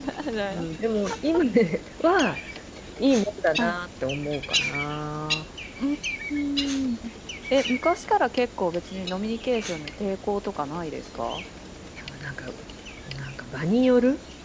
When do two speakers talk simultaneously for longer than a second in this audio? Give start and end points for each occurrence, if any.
none

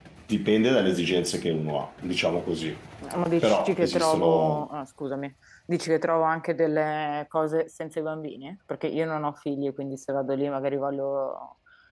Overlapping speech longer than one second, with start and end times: 3.4-4.7

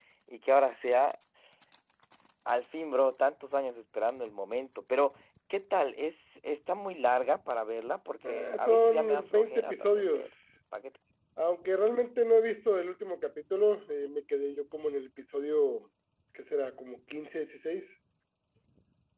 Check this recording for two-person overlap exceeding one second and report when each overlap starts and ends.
8.3-10.3

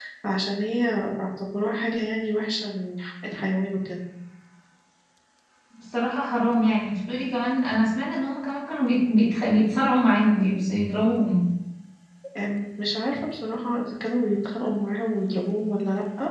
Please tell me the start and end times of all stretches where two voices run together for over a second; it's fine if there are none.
none

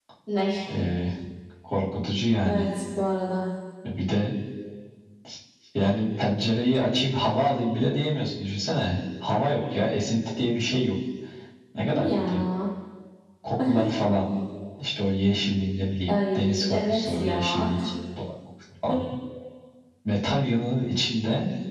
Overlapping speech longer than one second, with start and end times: 16.1-17.7

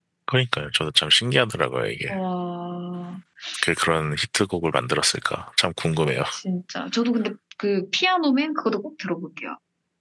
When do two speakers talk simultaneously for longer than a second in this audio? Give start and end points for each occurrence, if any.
none

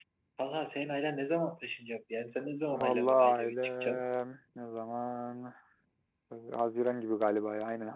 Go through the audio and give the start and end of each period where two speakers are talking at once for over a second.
2.7-4.0

